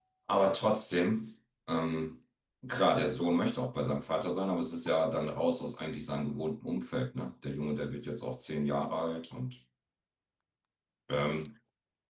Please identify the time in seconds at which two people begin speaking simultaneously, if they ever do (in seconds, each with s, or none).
none